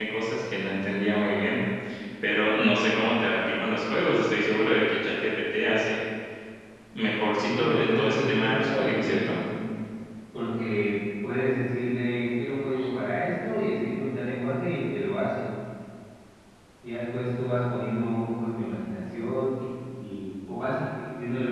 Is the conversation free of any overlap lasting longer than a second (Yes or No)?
No